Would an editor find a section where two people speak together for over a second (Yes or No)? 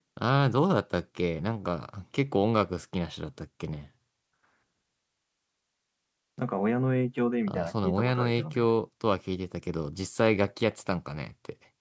Yes